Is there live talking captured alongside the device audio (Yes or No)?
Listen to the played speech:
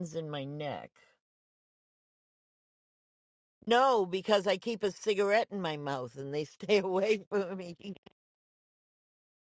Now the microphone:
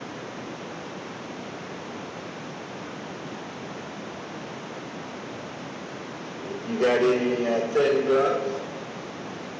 Yes